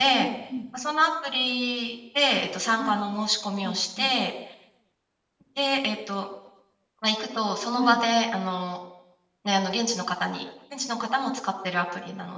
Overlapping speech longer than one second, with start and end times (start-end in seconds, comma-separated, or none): none